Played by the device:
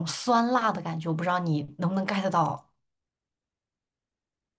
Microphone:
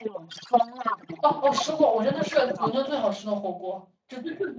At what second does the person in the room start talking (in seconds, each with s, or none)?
1.2 s